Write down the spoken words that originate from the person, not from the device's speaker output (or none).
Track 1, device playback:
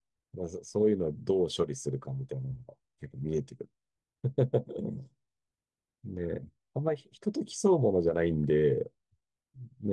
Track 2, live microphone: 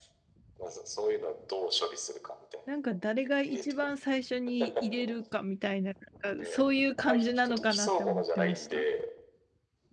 なんか誰が一番最初に入れるかみたいな、なんかそういう感じなのかなって思ってました。